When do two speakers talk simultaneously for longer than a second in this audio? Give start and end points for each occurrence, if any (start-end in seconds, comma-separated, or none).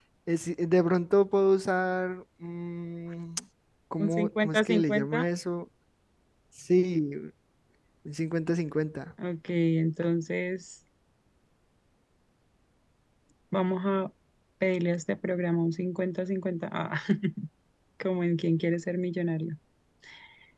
4.0-5.2